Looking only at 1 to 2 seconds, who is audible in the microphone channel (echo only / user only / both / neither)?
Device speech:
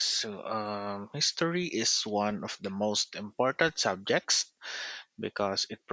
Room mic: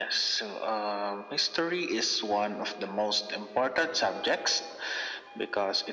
echo only